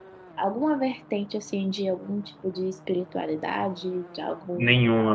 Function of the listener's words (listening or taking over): taking over